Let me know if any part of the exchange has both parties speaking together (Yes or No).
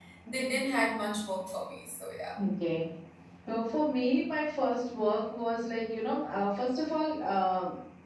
No